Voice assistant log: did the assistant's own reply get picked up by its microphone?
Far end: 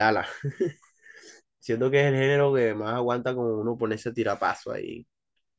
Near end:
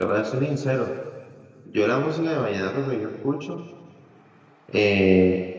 No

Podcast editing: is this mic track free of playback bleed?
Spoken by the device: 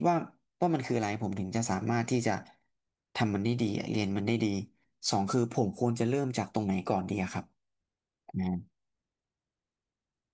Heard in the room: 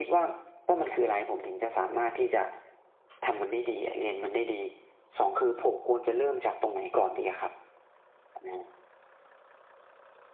No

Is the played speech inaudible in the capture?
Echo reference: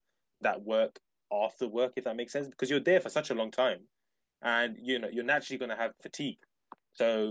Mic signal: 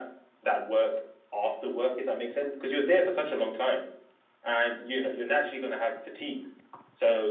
No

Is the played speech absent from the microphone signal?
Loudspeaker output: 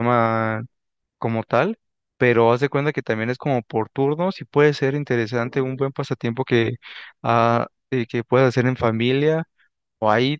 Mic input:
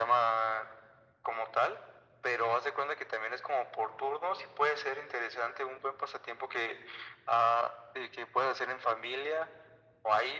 No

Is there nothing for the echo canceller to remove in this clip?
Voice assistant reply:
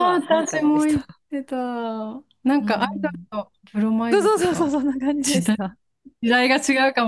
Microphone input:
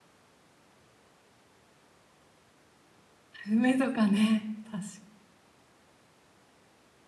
Yes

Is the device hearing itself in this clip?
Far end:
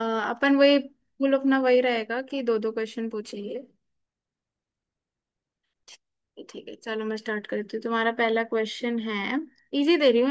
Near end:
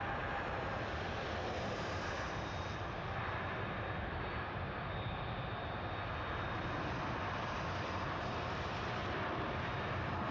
No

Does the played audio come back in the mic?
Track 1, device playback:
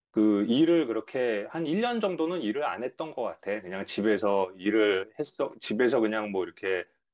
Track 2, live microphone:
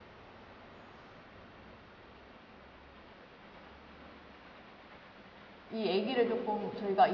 No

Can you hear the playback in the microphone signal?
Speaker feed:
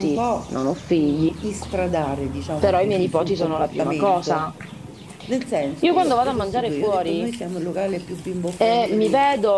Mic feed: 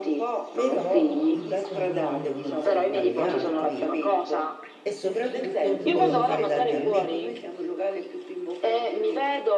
Yes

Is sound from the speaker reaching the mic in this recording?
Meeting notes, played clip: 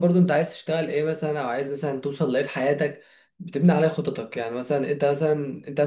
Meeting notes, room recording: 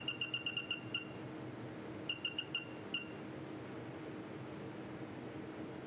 No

